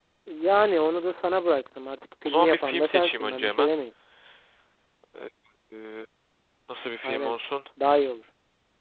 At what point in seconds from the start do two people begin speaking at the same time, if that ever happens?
2.2 s

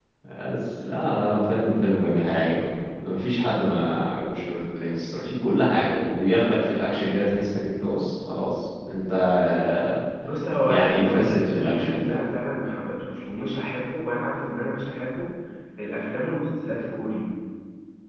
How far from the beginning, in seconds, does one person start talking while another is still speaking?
10.7 s

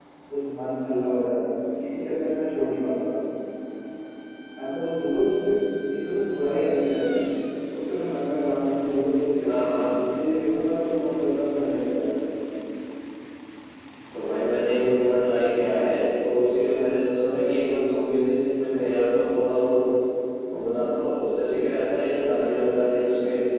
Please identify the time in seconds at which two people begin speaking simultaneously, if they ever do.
none

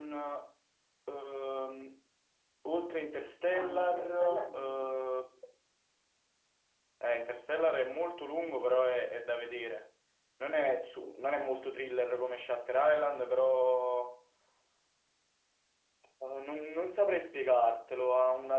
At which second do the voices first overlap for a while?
3.5 s

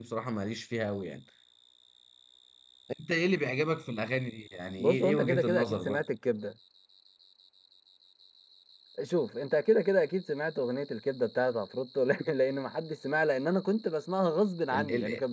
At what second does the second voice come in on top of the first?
4.8 s

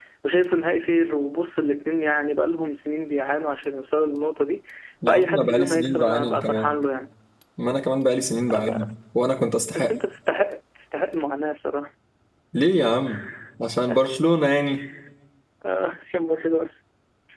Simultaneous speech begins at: 5.1 s

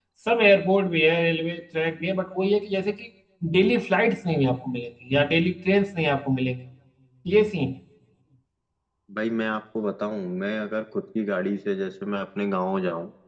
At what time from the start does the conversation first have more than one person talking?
none

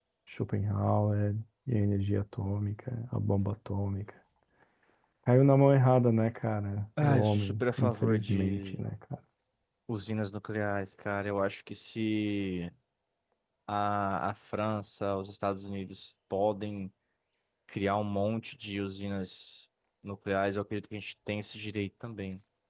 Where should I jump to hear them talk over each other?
7.0 s

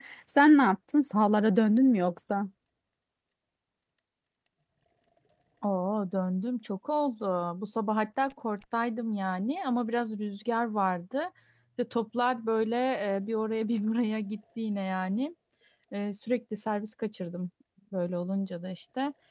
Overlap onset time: none

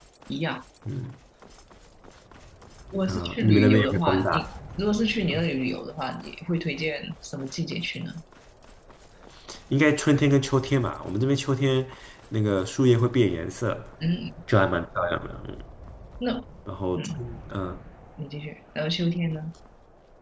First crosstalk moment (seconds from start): 3.1 s

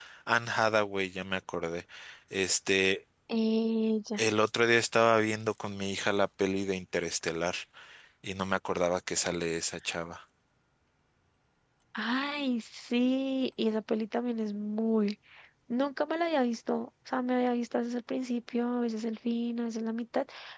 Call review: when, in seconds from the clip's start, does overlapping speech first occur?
none

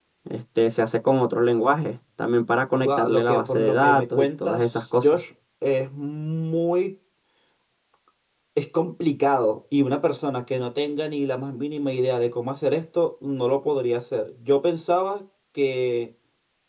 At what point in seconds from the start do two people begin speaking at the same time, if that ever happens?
2.8 s

